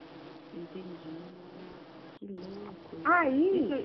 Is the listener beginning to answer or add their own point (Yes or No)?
No